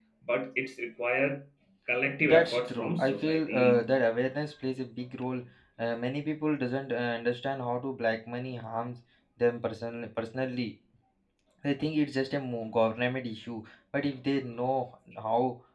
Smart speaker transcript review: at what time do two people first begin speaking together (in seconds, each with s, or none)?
2.2 s